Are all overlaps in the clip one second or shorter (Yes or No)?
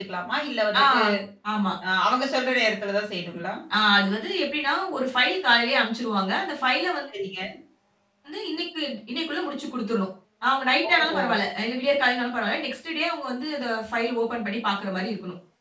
Yes